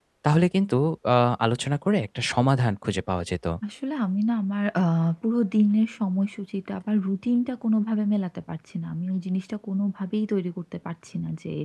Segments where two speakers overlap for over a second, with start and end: none

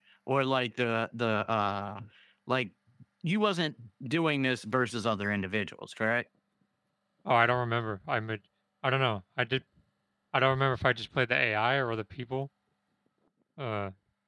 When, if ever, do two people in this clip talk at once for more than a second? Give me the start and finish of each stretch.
none

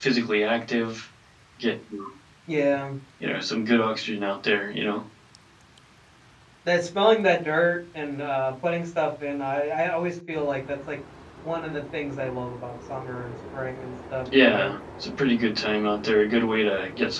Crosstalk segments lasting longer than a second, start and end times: none

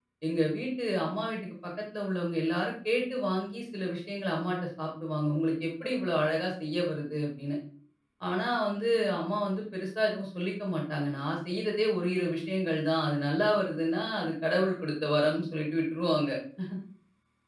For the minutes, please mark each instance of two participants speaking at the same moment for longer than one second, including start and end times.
none

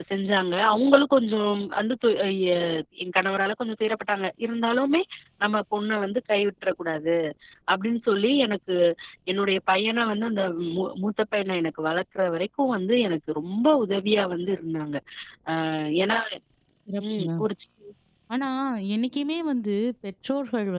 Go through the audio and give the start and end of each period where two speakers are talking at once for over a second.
none

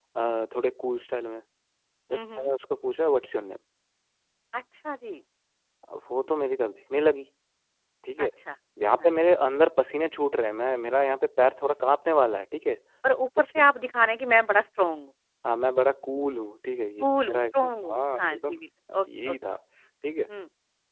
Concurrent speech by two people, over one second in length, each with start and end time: 17.0-18.6

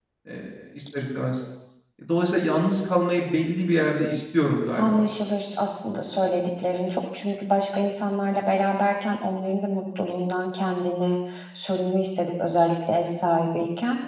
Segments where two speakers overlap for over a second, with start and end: none

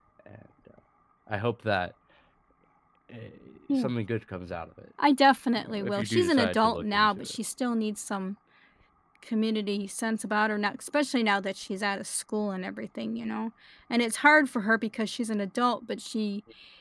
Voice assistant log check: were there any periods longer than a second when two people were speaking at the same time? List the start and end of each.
5.6-7.4

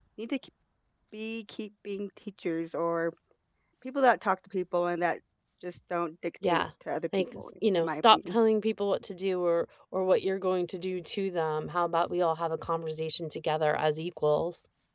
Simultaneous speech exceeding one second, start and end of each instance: 7.1-8.3

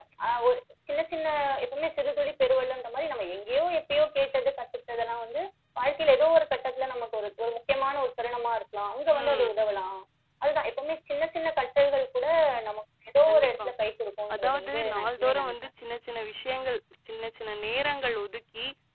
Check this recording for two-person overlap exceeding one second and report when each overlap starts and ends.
14.3-15.5

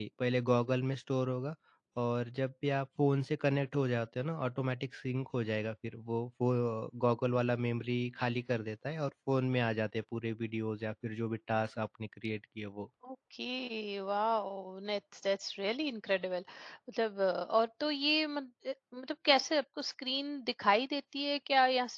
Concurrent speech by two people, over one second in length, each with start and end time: none

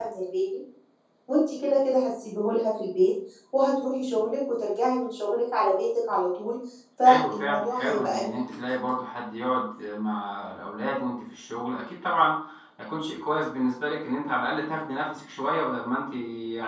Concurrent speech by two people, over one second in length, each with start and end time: 7.0-8.4

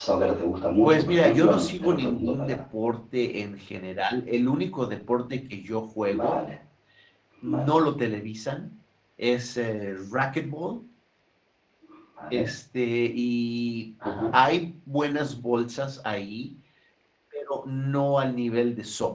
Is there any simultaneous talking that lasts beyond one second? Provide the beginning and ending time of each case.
0.8-2.6

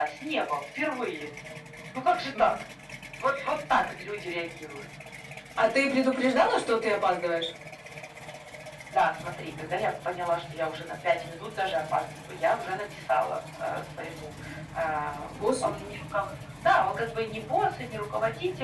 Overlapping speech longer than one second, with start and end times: none

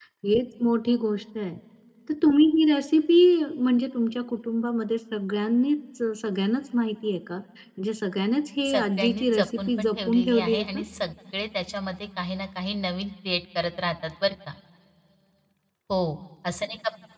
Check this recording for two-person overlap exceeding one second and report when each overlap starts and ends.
8.7-10.8

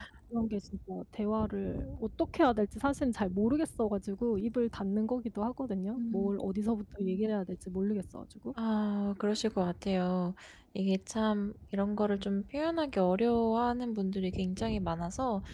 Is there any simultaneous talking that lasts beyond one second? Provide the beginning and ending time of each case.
none

